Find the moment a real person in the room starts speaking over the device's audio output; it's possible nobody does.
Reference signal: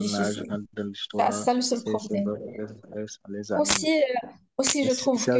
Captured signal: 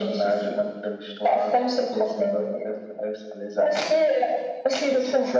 none

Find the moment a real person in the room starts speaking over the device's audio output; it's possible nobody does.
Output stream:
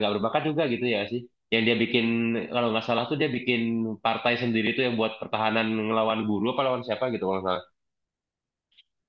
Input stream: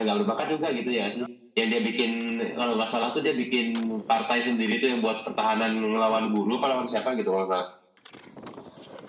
none

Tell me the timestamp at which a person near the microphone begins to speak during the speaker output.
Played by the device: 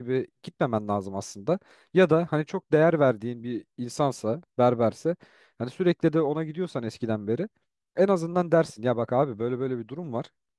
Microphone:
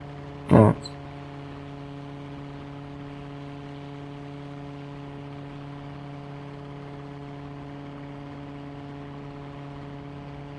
0.5 s

